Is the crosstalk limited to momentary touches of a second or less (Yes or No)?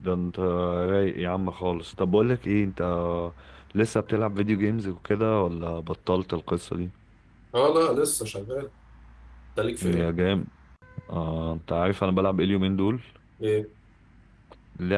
Yes